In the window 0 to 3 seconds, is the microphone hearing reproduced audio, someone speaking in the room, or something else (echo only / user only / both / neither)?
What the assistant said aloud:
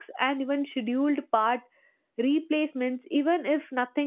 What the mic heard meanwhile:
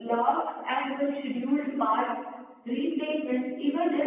echo only